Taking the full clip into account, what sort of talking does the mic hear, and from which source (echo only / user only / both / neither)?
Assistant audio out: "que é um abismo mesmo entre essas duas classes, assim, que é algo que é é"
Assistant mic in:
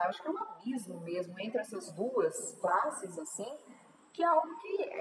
echo only